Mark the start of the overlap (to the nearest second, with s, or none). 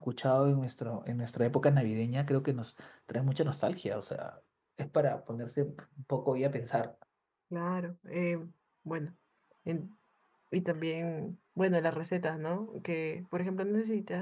none